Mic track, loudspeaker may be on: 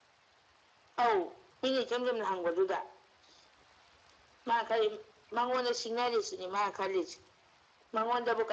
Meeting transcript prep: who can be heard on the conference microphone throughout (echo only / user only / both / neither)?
echo only